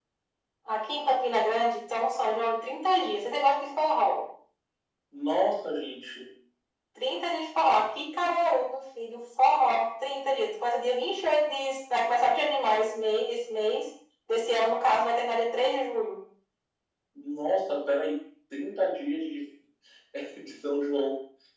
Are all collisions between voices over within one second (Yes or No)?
Yes